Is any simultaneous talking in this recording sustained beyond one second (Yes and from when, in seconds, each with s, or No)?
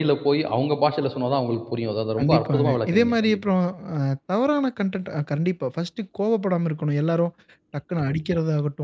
Yes, from 2.2 s